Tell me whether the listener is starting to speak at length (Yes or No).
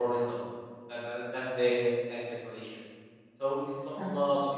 No